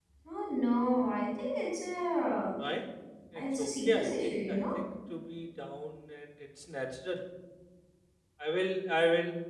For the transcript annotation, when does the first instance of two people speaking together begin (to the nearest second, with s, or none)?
3 s